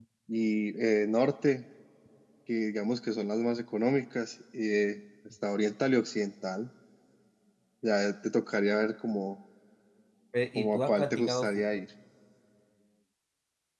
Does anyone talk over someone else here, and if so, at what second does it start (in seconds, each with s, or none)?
10.6 s